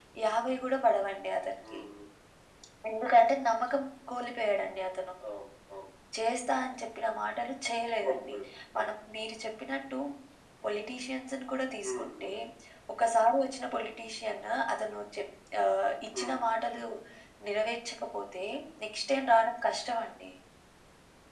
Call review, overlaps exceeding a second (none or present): none